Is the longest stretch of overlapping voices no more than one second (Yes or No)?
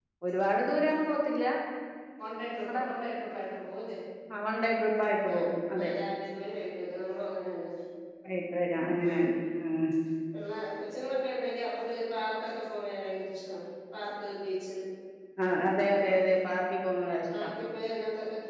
Yes